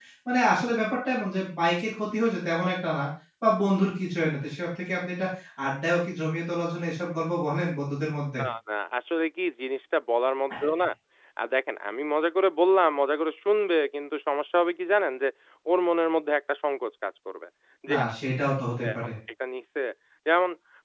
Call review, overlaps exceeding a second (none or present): none